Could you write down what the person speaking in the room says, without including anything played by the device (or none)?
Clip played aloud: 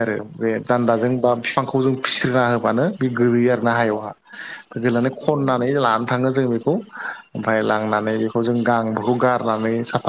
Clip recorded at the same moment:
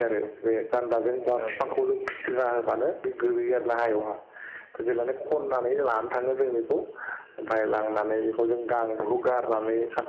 नंगौ नंगौ